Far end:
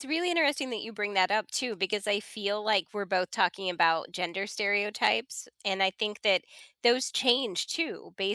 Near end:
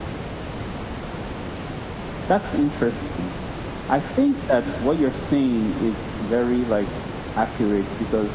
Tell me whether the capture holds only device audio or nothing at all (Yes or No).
No